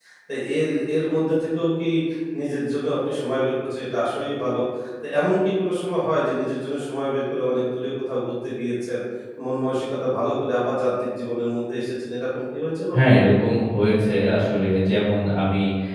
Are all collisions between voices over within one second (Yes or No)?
Yes